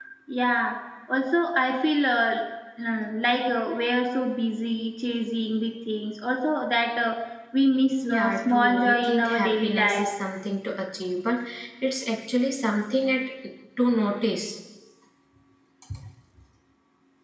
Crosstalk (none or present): present